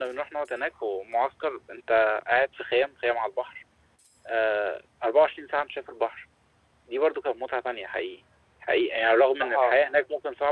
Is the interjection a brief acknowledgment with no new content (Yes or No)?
Yes